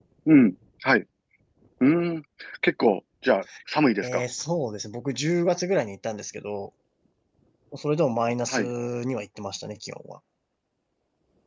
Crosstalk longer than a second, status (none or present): none